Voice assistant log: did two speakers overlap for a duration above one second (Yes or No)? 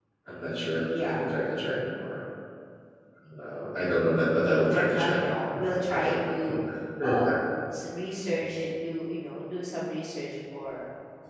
Yes